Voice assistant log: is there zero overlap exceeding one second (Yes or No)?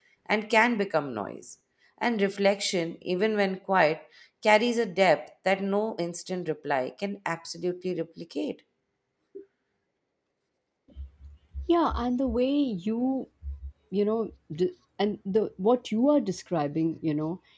Yes